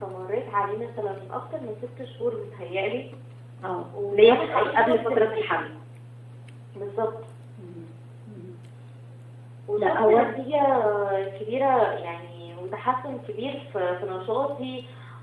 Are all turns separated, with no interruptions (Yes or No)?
No